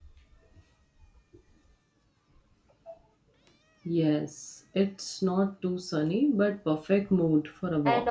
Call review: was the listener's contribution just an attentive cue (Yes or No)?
No